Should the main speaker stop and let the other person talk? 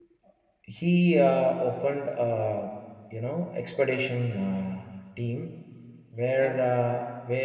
No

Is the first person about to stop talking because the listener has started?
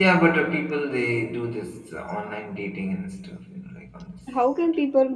Yes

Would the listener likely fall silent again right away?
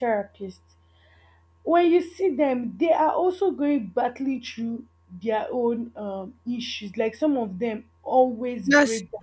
Yes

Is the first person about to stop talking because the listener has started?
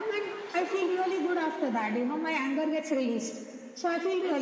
Yes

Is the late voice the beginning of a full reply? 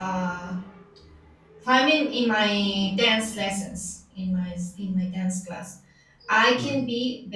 No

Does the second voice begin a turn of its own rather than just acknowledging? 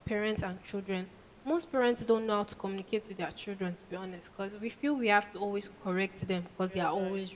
No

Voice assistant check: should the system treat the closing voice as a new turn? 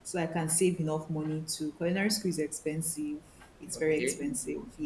No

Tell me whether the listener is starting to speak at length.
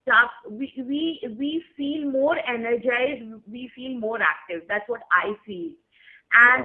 No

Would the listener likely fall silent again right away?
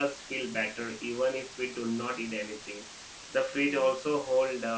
Yes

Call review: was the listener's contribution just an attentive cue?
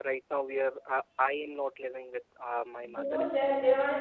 No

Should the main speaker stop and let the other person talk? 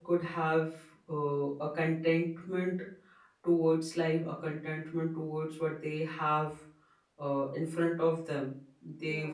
No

